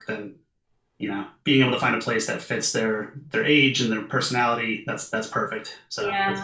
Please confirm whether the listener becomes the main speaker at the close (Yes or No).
Yes